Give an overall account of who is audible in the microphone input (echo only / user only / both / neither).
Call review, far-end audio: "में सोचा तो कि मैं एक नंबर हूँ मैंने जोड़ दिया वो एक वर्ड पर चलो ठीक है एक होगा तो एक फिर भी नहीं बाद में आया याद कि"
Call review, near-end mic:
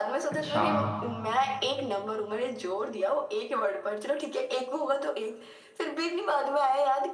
both